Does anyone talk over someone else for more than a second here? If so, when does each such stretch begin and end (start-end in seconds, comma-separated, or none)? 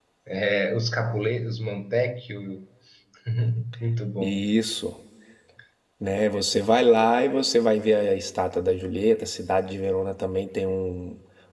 none